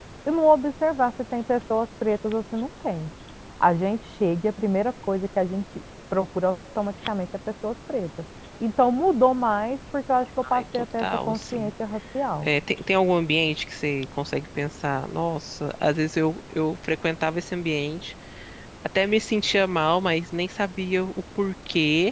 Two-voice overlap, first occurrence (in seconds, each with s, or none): 10.4 s